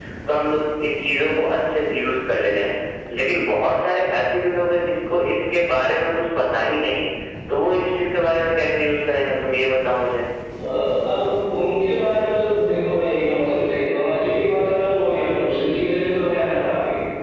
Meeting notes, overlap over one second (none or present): none